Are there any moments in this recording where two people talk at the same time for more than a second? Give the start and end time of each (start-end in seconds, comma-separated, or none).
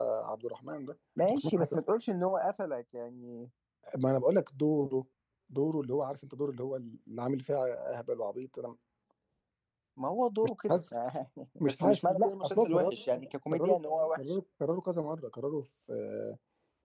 11.6-12.9